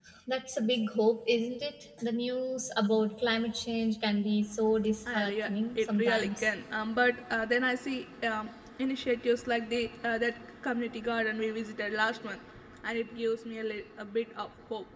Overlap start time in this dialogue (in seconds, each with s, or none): 5.1 s